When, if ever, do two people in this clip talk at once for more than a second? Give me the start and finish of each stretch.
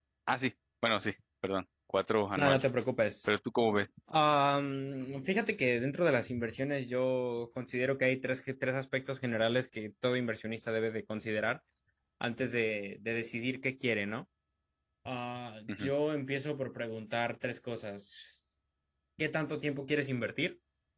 none

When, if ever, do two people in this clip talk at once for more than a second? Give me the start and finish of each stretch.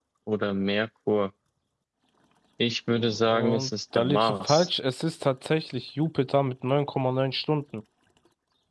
2.9-4.7

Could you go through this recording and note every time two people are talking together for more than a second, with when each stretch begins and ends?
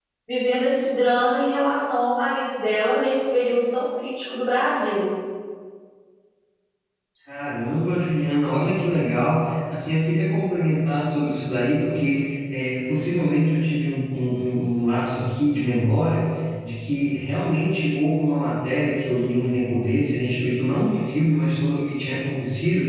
none

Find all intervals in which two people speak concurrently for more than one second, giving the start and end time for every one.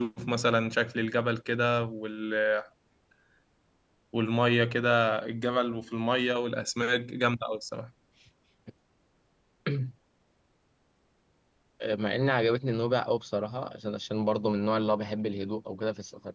none

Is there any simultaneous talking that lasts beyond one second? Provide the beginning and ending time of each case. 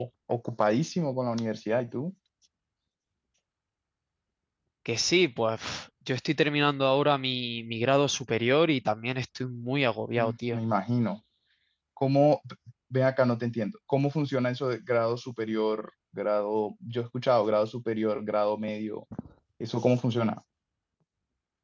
none

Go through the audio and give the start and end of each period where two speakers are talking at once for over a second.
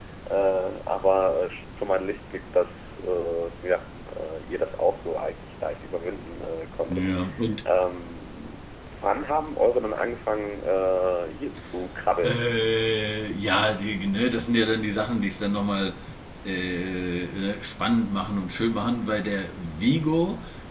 none

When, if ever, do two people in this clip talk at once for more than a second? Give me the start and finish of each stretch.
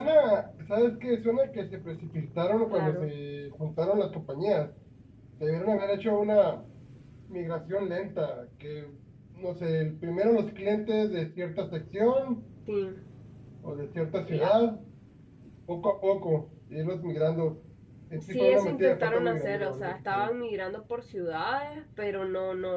18.2-20.3

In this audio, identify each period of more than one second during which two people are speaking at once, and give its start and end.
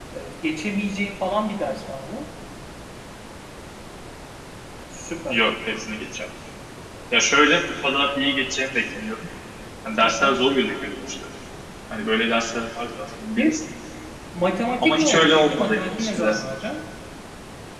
14.8-16.4

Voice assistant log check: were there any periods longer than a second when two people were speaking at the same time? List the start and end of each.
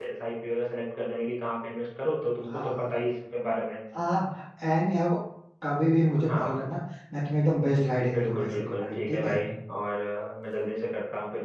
8.1-9.4

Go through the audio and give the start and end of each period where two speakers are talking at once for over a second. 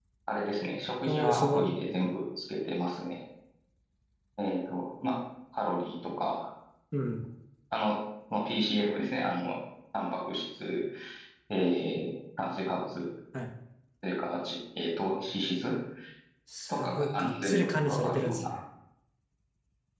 16.7-18.6

